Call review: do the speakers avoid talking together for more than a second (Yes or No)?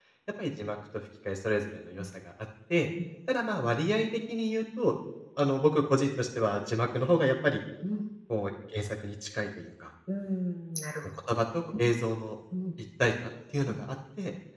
Yes